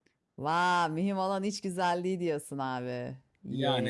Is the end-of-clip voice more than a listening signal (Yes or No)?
Yes